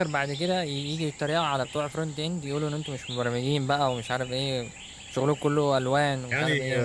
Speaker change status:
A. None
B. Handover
B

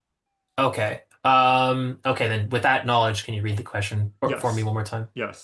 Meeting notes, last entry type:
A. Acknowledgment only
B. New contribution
B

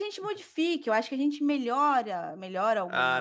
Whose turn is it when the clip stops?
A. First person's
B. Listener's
B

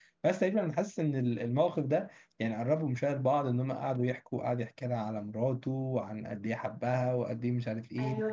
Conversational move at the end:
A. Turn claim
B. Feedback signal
A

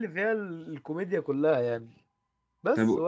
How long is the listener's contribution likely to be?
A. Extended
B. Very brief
B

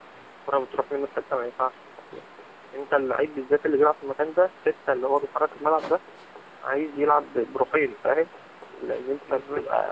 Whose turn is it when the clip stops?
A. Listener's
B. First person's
B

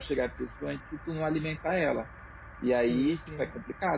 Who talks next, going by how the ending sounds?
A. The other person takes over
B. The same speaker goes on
B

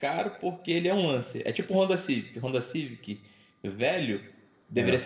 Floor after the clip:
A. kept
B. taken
A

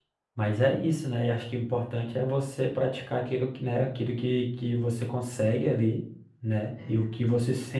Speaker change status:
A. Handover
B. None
B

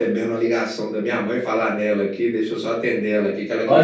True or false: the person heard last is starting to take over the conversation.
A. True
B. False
A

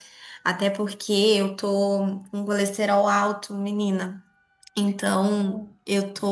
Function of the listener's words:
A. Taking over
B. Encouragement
B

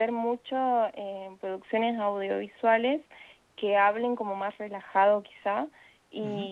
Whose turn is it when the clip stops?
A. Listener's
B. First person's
B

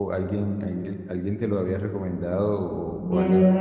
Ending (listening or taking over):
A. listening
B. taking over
B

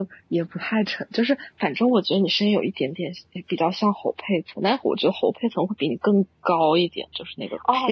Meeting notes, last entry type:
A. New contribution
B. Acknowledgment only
A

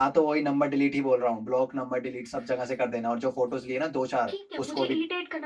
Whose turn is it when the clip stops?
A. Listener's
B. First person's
A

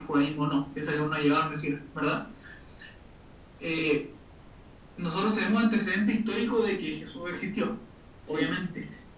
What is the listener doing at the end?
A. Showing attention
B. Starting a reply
A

